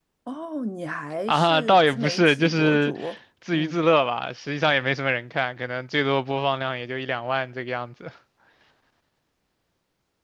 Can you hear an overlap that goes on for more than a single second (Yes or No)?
Yes